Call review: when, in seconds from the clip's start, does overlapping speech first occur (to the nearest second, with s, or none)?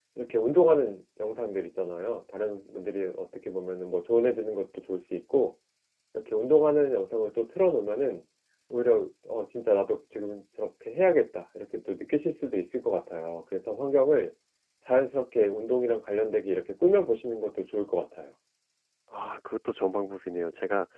none